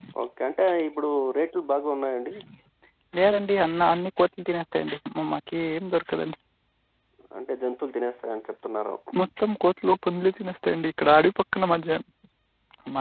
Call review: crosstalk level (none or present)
none